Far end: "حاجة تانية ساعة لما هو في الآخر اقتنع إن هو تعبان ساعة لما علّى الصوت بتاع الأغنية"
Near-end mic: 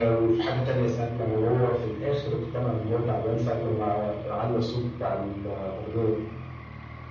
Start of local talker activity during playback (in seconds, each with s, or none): none